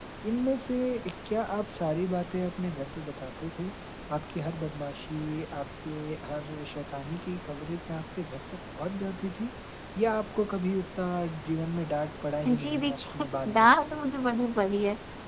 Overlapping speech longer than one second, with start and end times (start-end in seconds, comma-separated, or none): 12.5-14.0